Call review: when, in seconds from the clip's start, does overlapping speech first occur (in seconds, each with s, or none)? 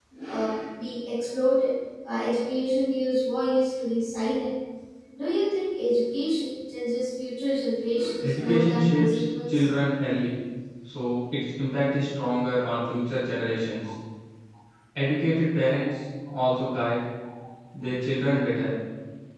8.2 s